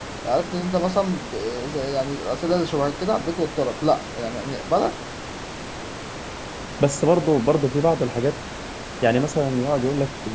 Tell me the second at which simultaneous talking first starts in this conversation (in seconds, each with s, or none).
none